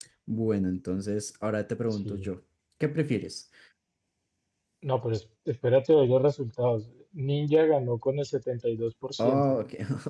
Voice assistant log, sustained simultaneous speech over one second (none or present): none